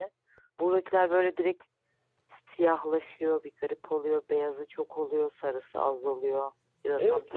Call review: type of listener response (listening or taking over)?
taking over